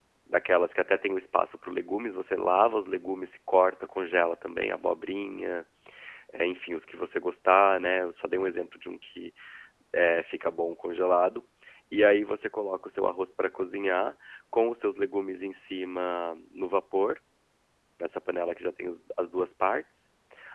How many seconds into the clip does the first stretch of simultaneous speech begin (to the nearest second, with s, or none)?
none